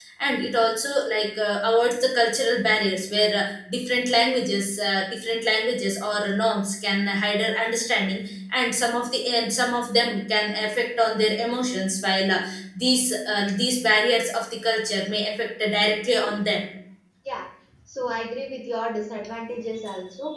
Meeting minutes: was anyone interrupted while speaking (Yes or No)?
No